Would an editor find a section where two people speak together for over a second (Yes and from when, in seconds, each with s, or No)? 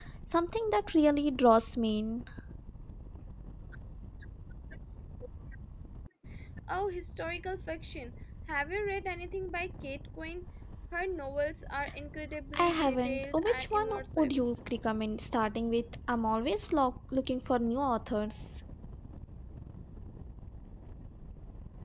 Yes, from 12.5 s